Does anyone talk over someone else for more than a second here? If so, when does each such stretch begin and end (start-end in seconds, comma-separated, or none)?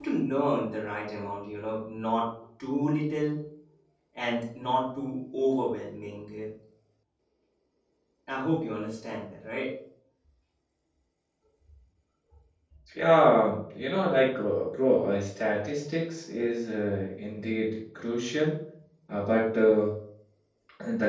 none